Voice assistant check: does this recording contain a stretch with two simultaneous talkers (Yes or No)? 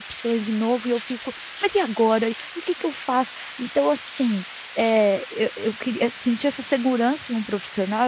No